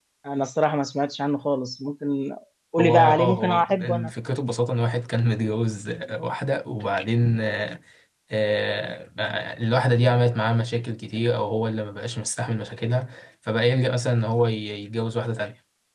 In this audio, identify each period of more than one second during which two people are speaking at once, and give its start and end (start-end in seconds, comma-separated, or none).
2.8-4.1